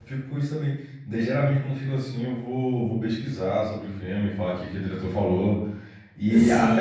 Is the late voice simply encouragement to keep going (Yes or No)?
Yes